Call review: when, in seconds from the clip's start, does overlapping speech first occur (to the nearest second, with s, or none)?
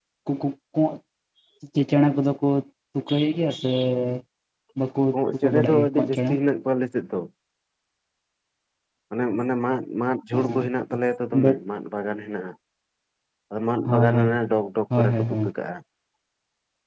5 s